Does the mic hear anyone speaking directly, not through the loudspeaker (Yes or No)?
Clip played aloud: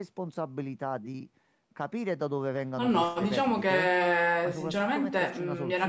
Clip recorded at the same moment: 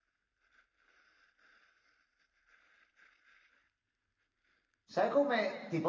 Yes